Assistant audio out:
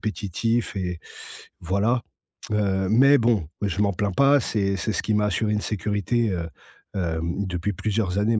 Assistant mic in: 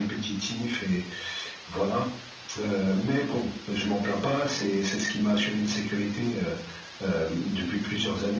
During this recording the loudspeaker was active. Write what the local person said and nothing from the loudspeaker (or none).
none